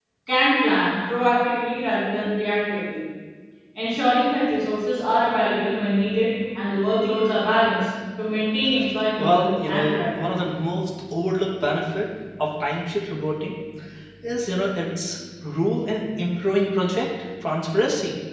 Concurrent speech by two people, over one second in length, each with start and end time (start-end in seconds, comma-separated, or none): 9.2-10.5